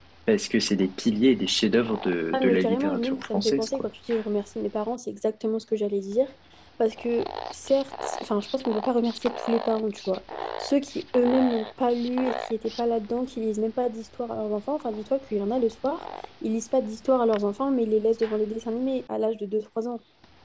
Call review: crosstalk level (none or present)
present